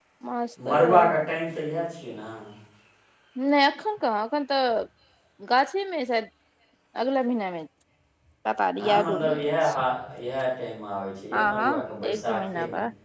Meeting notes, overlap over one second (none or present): present